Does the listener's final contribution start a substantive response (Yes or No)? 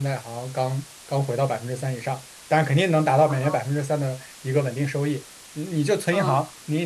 No